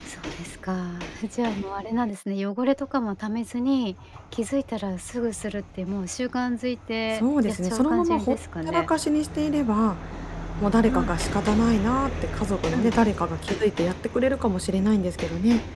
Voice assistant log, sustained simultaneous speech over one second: present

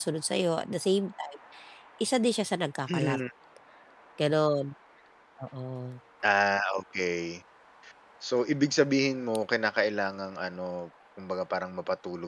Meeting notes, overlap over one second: none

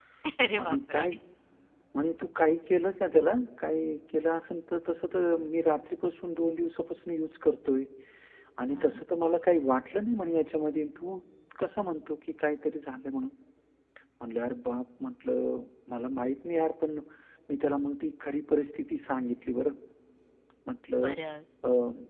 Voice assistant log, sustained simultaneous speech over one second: none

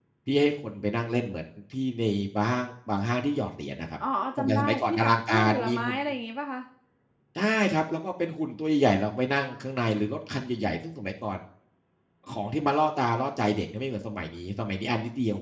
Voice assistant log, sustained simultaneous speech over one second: present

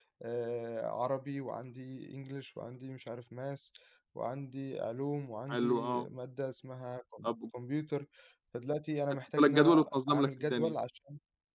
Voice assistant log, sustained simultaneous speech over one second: present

